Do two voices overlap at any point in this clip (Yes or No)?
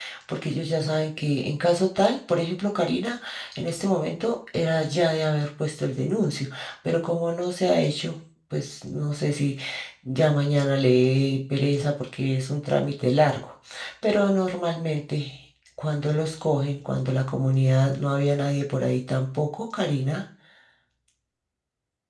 No